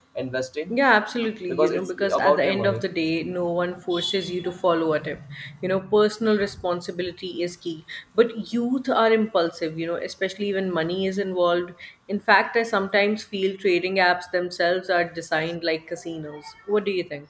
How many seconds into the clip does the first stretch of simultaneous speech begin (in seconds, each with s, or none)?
1.5 s